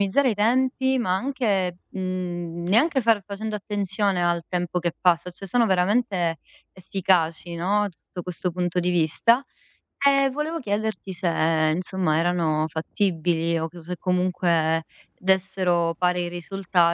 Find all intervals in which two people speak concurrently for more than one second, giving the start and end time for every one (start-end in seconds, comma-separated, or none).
none